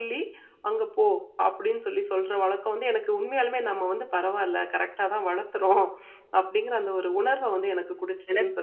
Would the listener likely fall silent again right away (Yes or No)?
No